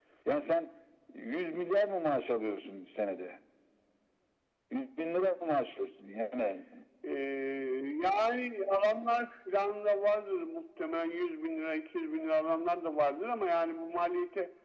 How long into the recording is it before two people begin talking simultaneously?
none

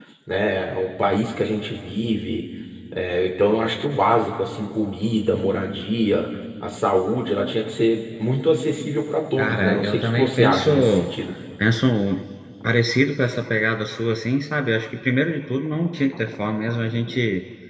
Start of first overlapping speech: 9.4 s

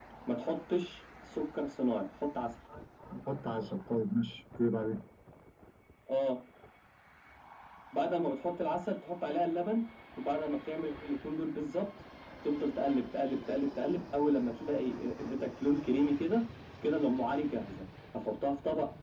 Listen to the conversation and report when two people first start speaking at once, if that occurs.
none

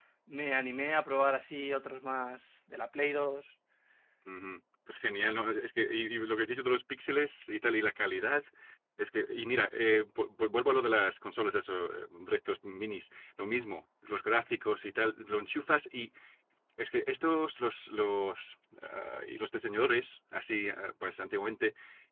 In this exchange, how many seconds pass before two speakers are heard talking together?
none

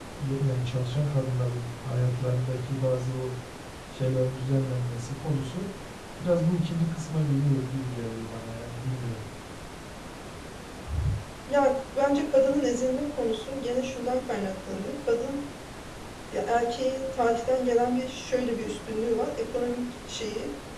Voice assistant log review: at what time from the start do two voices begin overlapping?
none

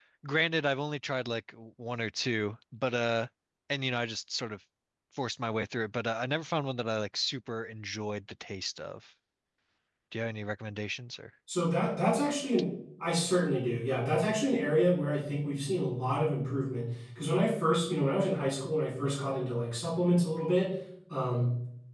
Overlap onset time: none

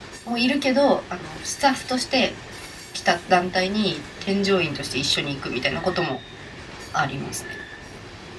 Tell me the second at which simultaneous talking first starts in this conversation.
none

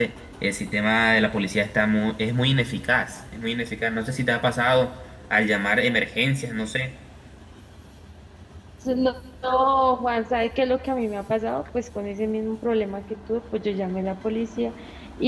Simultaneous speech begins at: none

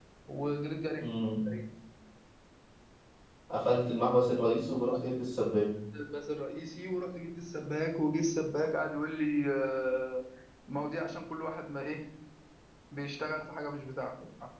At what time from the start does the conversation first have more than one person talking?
none

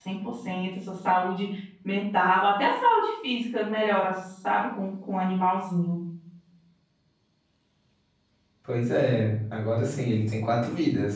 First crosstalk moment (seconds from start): none

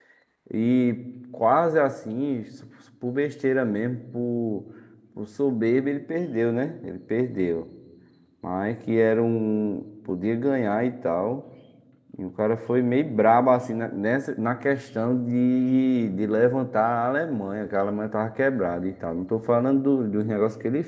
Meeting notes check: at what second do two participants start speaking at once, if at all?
none

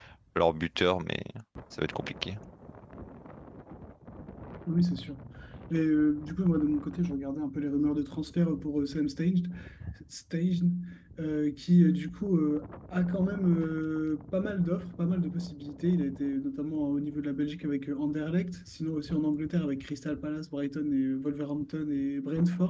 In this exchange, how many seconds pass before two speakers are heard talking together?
none

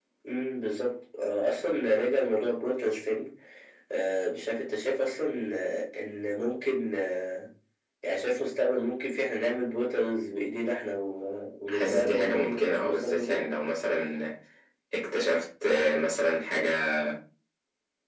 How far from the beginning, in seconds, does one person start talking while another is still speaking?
11.7 s

